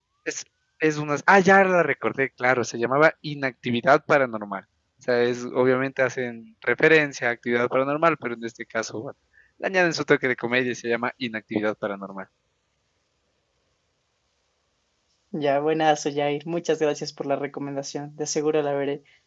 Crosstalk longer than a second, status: none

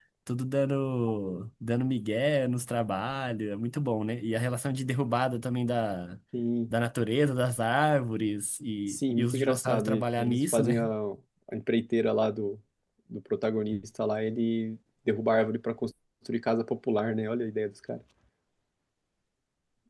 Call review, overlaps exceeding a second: present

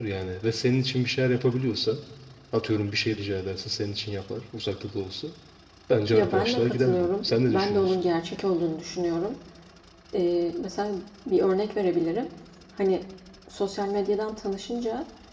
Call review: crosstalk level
present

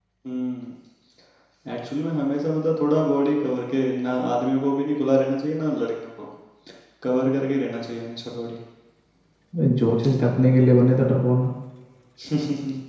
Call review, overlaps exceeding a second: none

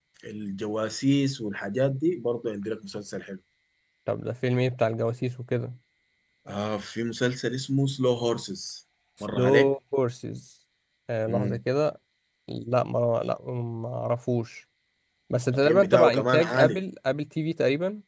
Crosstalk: present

